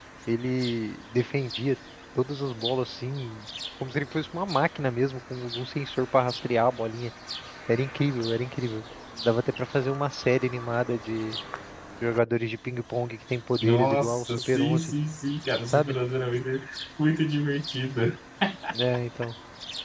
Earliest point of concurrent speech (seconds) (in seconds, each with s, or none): 13.6 s